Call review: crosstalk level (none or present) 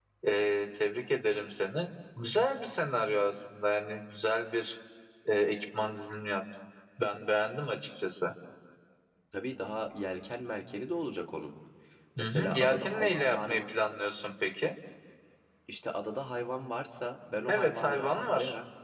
present